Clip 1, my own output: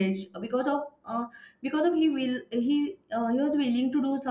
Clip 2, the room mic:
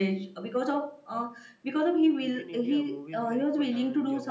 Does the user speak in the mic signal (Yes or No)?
Yes